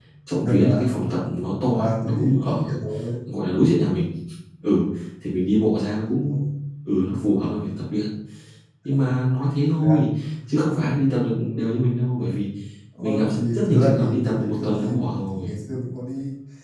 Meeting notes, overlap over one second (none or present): present